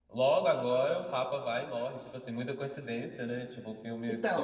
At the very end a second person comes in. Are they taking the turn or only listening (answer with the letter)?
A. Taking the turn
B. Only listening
B